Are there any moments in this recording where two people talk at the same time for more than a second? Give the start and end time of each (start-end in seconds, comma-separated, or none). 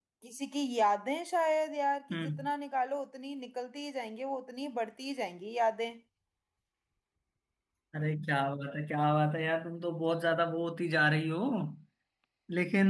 none